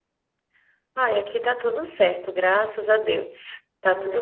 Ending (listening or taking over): listening